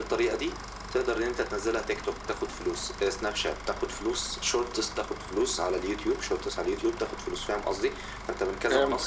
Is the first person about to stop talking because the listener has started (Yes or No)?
No